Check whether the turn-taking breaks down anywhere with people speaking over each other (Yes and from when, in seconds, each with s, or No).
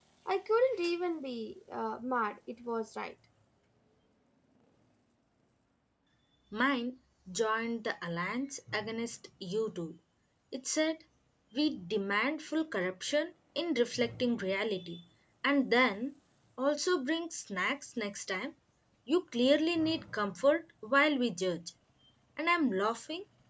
No